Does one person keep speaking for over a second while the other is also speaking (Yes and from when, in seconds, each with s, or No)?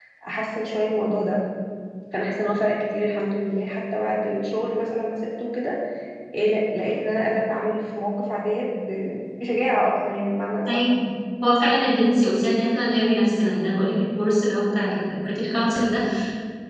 No